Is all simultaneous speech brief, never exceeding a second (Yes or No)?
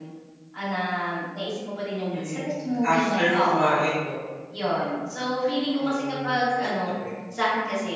No